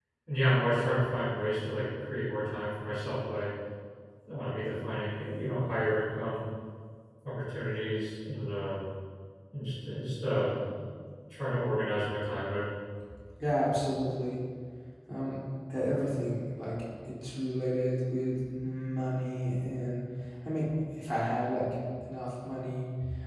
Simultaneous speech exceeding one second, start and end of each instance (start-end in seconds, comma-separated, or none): none